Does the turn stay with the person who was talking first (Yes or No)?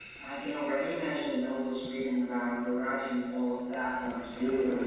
No